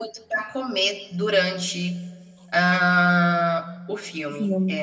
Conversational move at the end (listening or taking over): listening